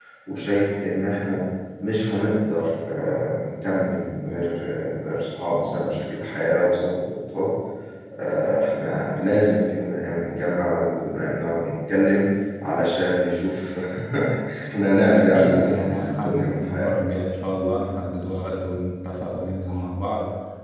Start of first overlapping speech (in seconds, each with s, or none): 14.9 s